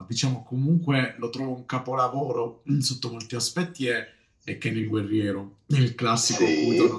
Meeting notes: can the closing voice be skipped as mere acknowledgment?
No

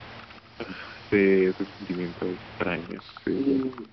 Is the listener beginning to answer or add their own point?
Yes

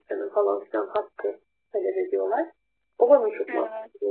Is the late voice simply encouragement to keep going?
Yes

